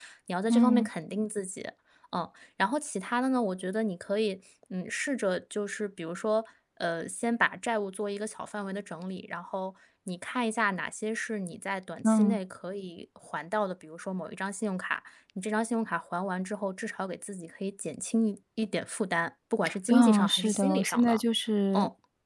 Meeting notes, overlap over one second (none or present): present